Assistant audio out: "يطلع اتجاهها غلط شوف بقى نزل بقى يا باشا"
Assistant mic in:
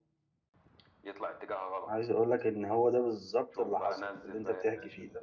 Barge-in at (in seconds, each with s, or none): 1.9 s